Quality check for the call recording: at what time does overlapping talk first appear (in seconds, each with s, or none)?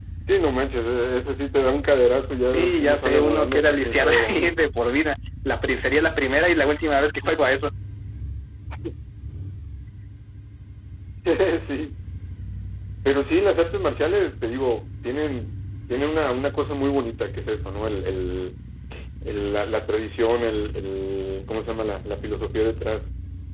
2.5 s